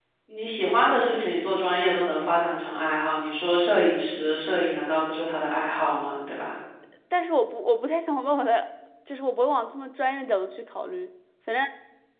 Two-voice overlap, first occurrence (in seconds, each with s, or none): none